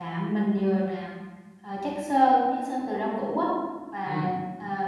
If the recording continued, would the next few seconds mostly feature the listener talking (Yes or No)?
No